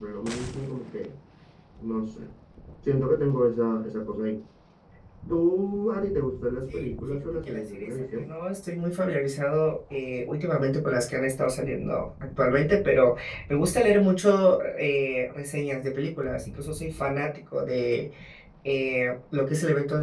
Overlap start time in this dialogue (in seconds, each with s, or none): 6.7 s